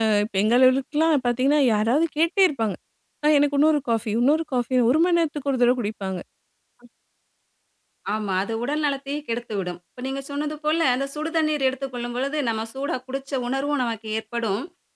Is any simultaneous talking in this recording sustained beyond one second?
No

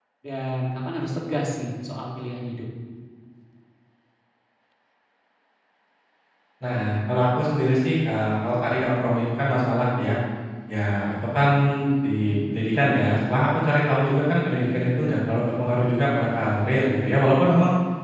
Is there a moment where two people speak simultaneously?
No

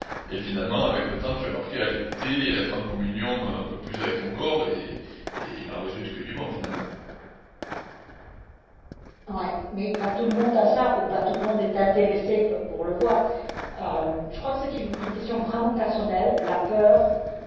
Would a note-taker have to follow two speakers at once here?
No

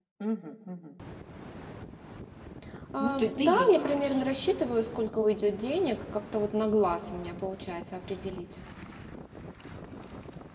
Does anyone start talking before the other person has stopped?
Yes, from 3.0 s

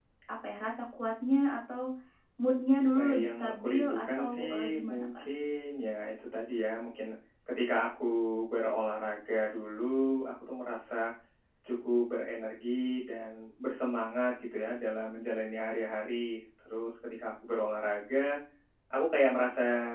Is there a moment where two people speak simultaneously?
Yes, from 2.9 s

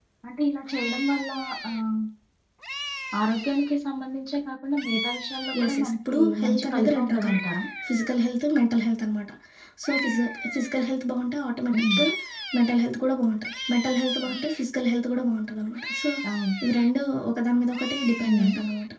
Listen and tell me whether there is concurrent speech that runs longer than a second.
Yes, from 5.6 s

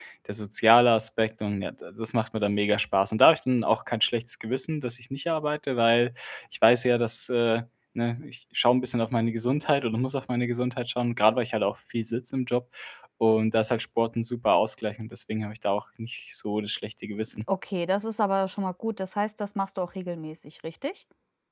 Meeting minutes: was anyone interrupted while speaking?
No

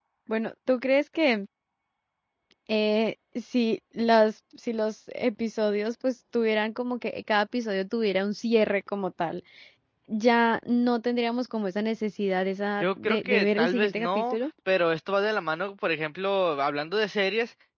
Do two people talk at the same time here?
Yes, from 12.8 s

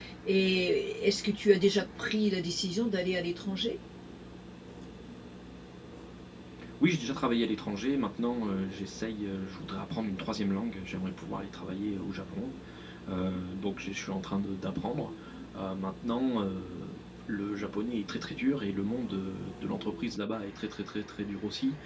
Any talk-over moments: No

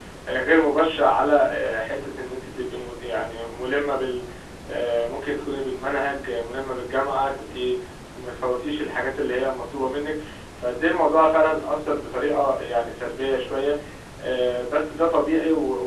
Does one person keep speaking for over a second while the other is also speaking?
No

